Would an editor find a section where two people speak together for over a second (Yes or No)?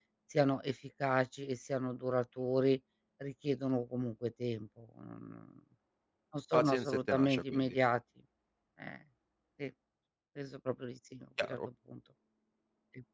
Yes